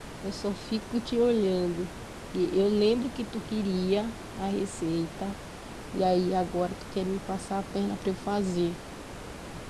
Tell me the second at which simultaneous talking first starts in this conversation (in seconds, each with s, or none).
none